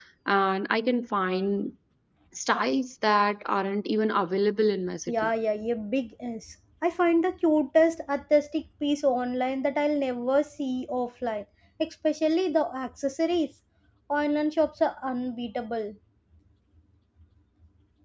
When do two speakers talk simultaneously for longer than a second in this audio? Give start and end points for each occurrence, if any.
none

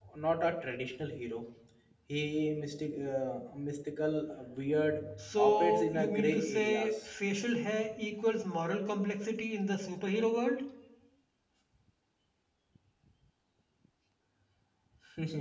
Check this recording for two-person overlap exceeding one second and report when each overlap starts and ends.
5.4-6.9

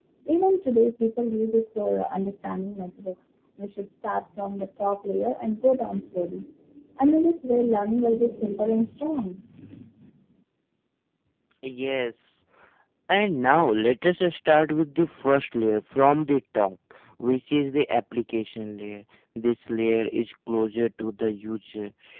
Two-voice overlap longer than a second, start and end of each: none

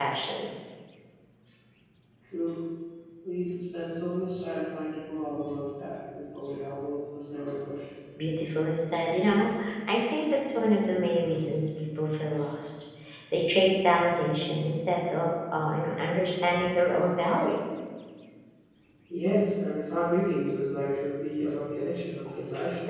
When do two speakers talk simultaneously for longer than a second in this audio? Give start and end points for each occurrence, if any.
none

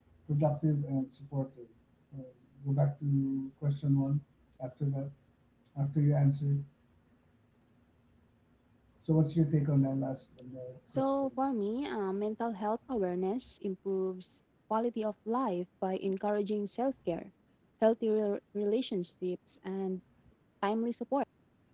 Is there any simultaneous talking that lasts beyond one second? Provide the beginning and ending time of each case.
none

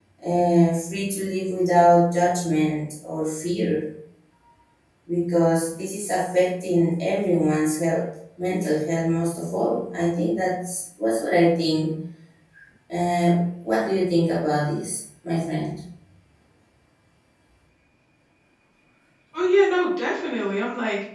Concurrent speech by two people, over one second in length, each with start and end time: none

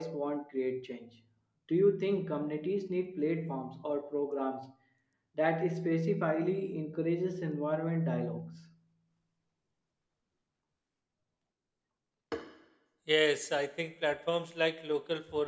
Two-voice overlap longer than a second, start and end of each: none

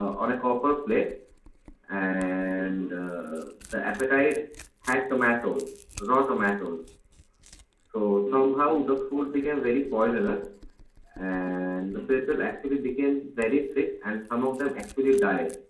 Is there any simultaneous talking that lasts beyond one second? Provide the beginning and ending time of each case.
8.2-9.6

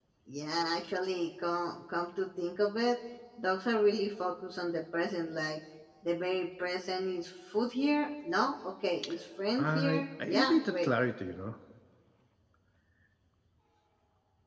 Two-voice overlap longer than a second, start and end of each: 9.6-10.9

